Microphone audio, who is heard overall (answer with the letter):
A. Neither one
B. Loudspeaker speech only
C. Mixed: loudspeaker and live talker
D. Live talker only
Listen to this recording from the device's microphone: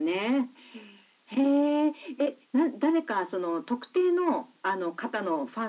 B